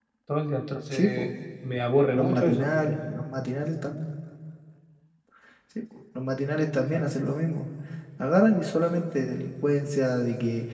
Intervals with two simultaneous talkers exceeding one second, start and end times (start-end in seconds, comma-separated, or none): none